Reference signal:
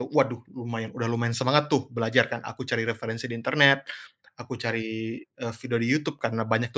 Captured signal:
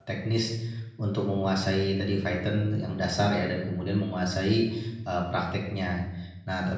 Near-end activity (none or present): present